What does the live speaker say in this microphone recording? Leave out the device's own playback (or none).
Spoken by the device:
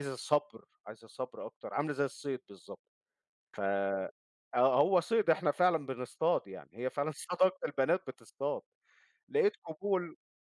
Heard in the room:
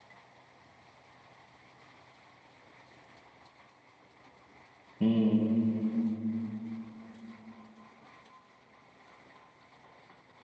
إمم،